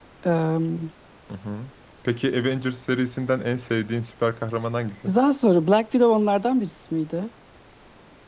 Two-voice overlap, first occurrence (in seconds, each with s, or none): none